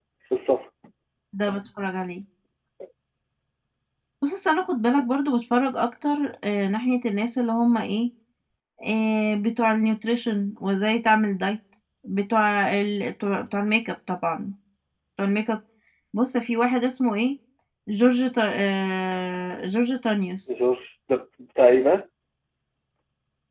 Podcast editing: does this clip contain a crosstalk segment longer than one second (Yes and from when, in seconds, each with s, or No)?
No